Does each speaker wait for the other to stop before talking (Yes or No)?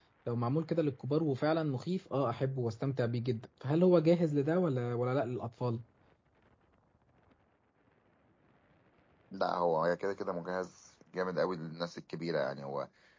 Yes